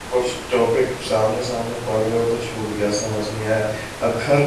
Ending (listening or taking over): listening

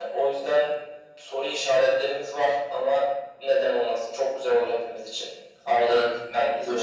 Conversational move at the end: taking over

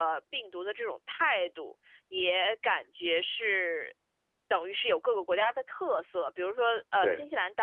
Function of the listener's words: listening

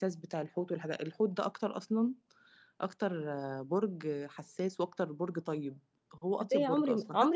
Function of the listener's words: taking over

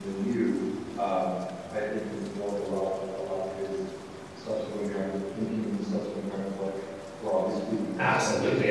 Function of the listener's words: taking over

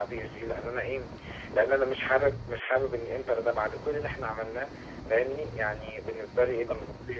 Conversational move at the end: taking over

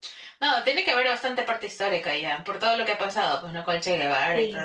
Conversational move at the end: taking over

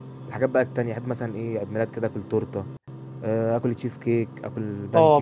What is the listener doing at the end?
taking over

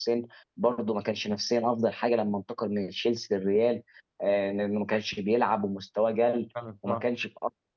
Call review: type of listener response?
listening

